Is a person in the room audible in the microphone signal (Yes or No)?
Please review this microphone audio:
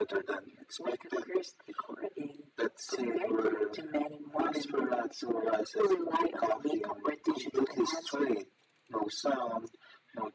No